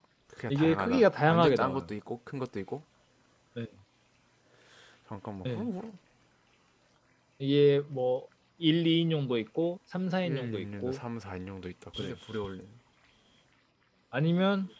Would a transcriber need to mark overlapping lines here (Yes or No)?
Yes